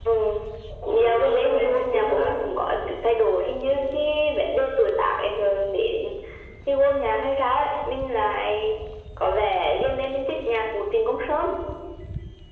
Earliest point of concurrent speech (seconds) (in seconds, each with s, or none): 0.9 s